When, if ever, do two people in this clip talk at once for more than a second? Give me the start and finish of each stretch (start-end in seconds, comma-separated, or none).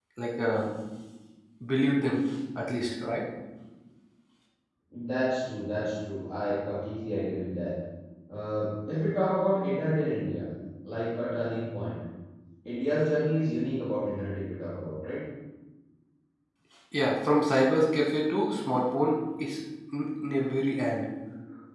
none